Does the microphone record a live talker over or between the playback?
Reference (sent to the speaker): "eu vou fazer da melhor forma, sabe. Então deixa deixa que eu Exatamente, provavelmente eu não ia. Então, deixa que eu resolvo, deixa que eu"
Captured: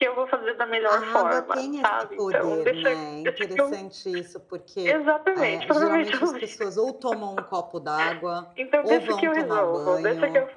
Yes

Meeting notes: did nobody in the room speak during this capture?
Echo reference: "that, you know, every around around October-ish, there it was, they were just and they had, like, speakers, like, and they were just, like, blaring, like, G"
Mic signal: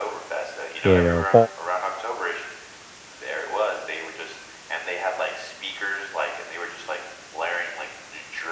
No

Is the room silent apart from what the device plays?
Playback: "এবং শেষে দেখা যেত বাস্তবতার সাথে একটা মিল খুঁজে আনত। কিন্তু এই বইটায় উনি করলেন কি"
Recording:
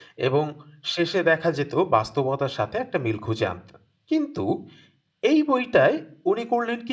Yes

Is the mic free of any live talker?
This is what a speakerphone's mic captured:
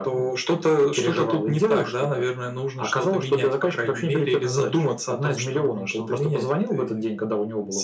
Yes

